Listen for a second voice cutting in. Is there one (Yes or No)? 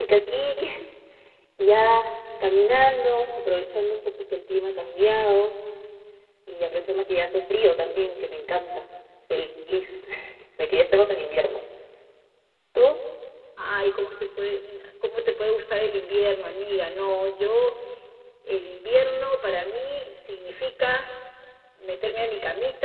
No